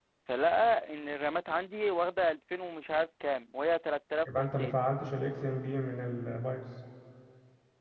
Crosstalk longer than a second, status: none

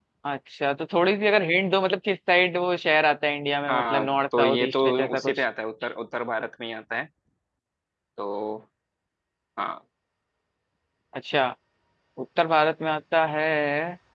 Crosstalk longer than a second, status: present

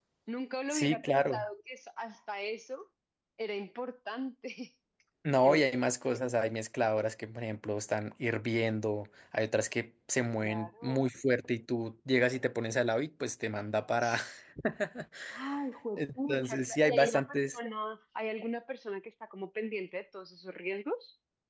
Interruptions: present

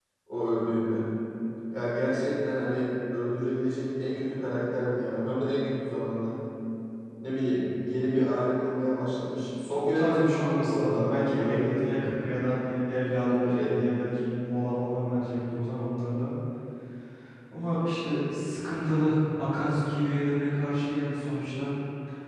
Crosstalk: present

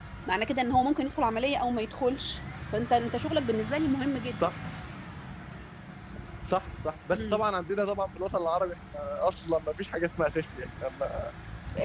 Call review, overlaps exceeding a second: none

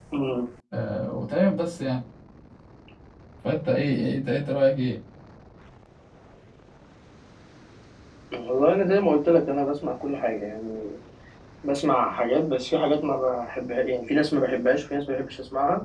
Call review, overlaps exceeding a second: none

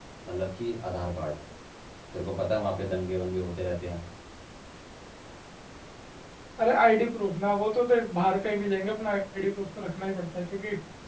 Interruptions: none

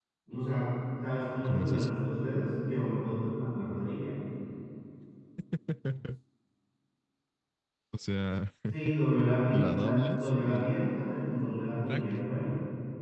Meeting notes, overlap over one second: present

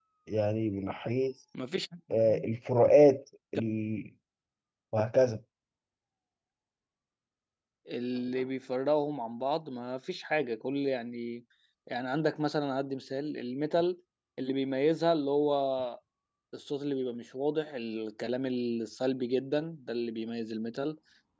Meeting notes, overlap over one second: none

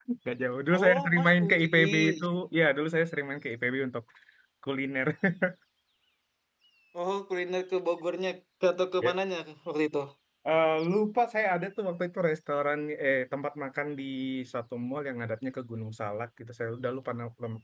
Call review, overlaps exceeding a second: present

